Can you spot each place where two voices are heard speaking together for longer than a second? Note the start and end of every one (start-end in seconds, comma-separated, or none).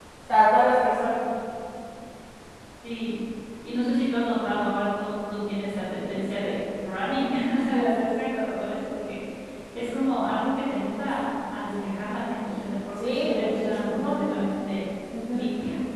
13.0-14.2